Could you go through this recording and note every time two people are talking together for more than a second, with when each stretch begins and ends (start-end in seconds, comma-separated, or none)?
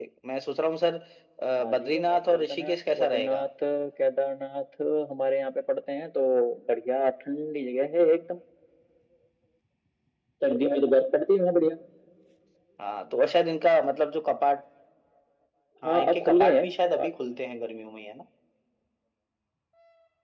1.6-3.4, 15.9-17.1